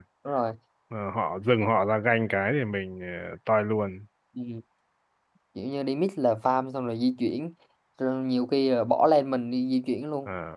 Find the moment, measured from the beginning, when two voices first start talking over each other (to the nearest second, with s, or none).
none